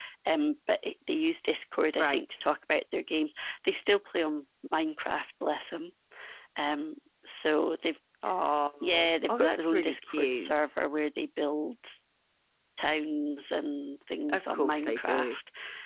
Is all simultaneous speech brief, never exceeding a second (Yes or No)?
No